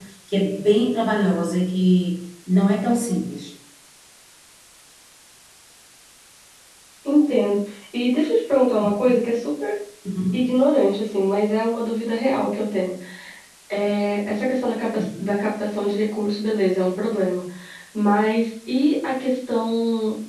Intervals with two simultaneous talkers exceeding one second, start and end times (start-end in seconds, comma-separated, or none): none